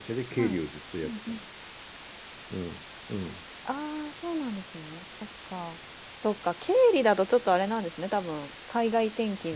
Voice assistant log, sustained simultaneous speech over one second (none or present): none